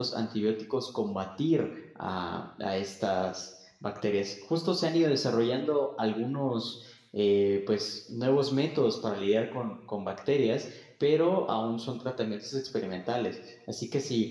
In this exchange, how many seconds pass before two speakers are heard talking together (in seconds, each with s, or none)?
none